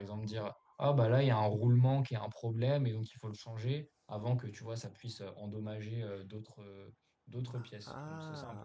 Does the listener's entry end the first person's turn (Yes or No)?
Yes